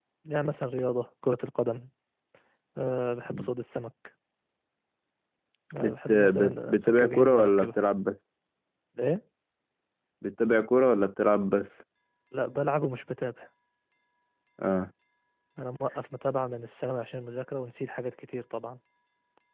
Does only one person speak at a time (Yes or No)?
No